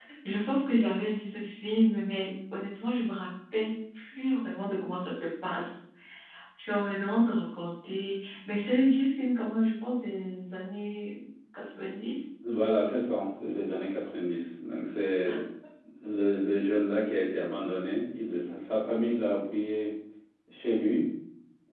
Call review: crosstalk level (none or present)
none